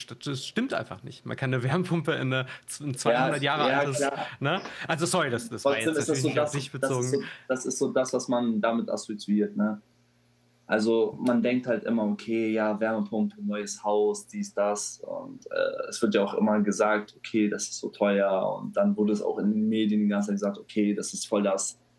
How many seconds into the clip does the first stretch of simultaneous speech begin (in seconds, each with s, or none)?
3.0 s